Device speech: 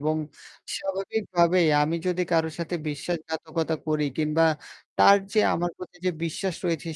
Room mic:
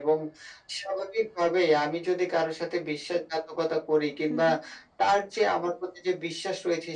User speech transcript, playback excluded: হুম, হুম।

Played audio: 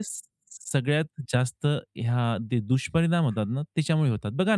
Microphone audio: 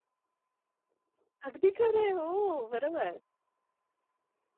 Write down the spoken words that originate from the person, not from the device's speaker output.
अगदी खरं आहे. हो. बरोबर.

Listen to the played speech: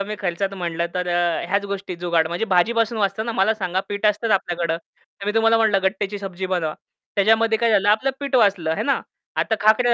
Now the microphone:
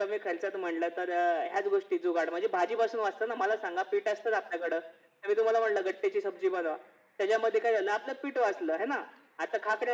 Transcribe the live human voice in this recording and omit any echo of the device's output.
none

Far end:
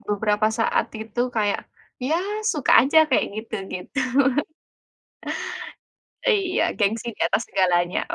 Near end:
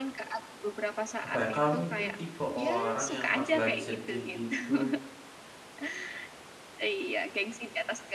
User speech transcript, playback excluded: apa ya, kamu itu tipe orang yang pas lagi sedih itu,

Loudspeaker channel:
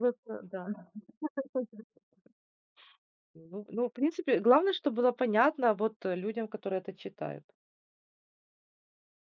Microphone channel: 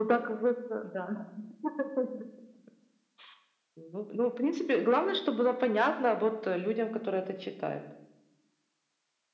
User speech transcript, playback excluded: none

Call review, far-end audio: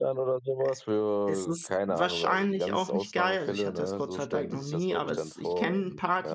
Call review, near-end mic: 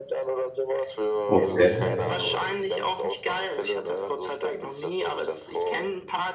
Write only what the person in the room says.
Okay.

